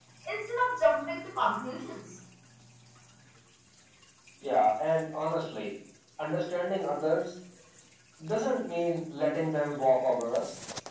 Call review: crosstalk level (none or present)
none